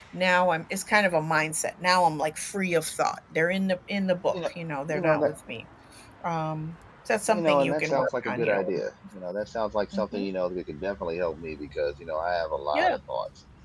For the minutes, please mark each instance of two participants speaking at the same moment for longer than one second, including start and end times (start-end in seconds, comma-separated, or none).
7.3-8.7